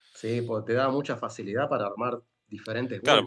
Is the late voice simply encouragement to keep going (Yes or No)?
No